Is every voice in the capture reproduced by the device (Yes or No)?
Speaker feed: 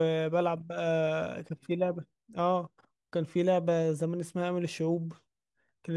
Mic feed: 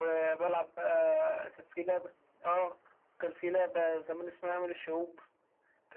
Yes